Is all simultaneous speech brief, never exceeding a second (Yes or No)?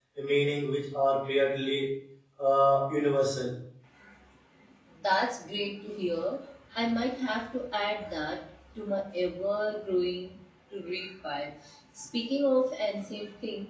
Yes